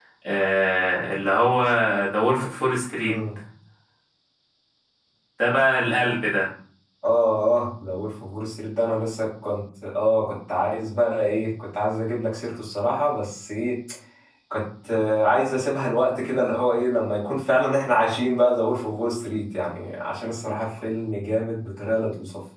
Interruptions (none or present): none